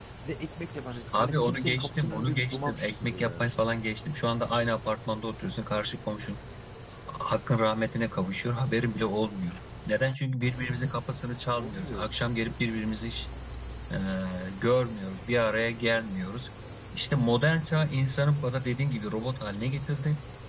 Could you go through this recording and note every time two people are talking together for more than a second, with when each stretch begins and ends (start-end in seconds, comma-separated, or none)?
1.1-3.5